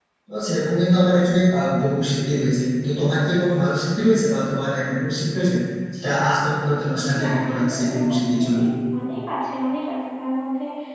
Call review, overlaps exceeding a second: present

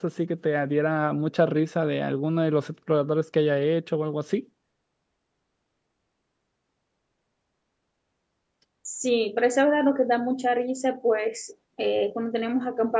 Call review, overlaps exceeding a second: none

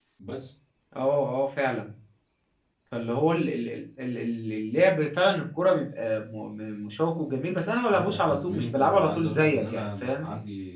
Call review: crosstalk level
present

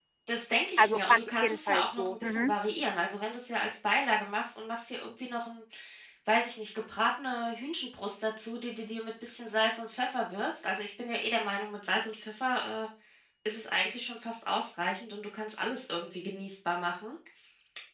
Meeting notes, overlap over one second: present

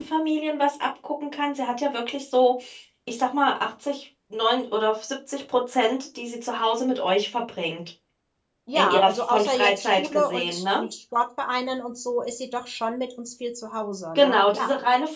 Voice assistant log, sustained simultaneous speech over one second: present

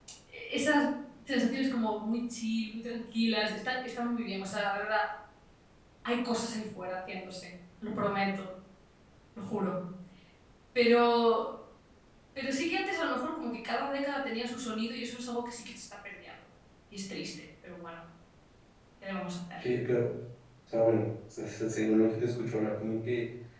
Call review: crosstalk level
none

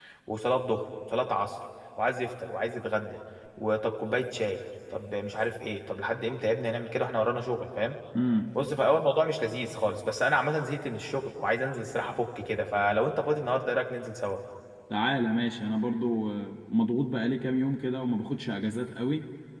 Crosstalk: none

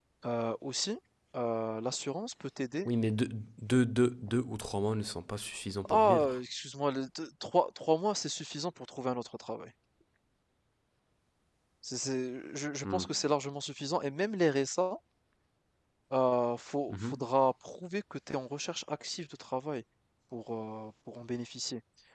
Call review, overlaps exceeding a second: none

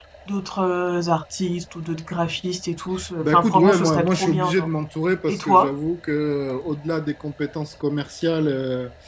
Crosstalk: present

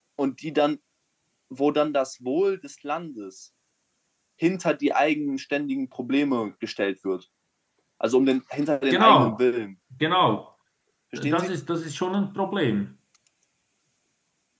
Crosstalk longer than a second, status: none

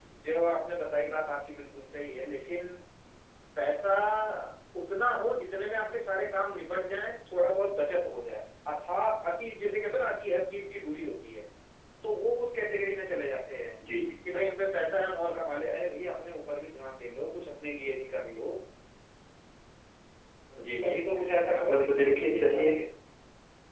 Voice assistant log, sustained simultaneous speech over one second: present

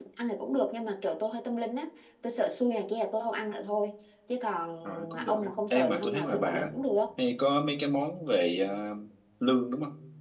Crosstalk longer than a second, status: present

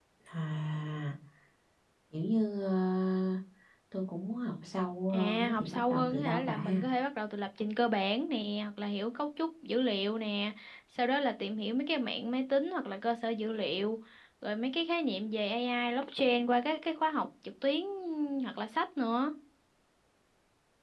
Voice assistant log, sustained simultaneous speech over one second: present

